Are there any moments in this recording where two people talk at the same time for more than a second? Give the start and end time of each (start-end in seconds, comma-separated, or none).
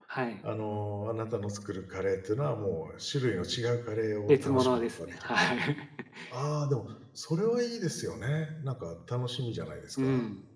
4.3-5.5